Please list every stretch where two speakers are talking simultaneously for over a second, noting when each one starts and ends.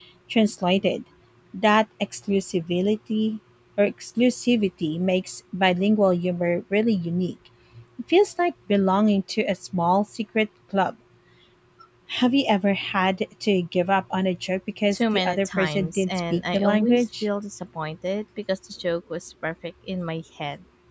14.9-17.2

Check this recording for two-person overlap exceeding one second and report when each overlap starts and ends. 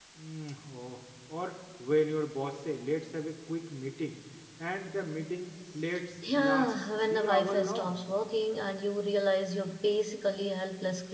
6.4-8.0

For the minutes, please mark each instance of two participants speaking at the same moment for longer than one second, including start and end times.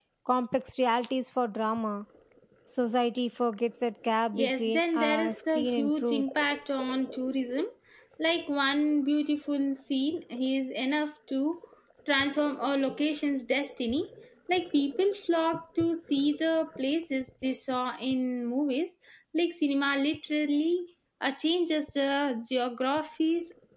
4.3-6.2

